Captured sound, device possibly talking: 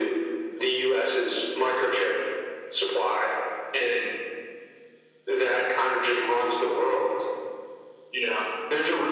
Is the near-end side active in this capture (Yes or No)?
No